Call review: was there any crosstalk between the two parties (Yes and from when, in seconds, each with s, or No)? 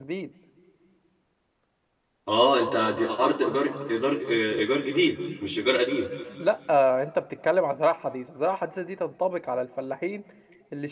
No